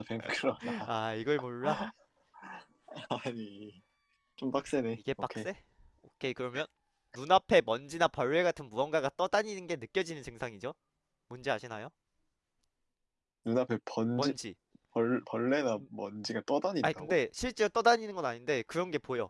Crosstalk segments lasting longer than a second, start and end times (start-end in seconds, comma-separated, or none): none